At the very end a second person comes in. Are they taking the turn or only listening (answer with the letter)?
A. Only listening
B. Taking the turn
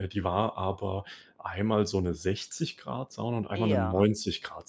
A